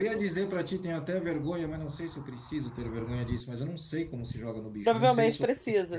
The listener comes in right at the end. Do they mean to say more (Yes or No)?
Yes